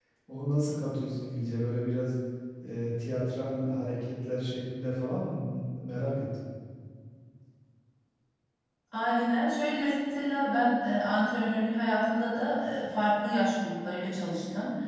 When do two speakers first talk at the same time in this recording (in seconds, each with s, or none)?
none